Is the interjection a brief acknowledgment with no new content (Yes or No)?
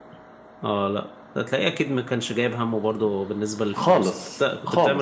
No